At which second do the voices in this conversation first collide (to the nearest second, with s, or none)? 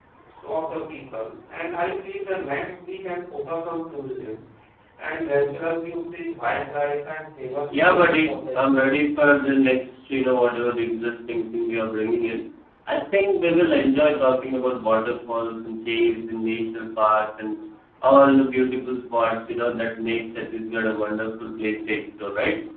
8 s